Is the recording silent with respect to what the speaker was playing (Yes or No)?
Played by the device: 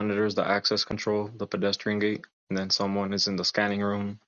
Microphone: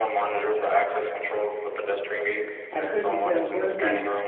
No